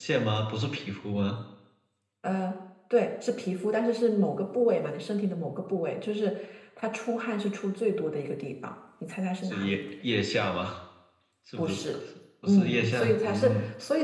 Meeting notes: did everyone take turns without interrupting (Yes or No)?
No